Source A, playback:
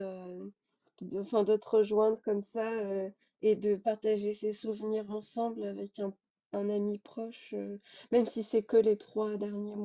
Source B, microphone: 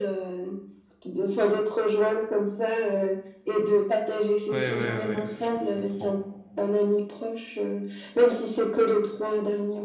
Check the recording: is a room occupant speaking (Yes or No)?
Yes